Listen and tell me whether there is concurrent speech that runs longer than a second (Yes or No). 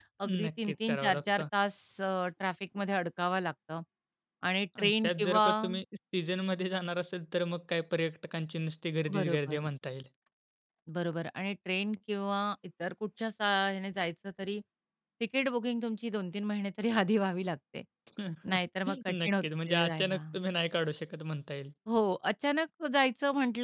Yes